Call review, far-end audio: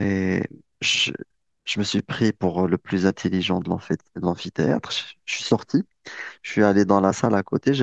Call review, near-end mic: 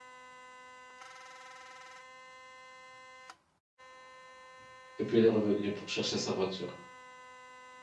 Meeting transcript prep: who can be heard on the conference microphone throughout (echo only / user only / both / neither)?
user only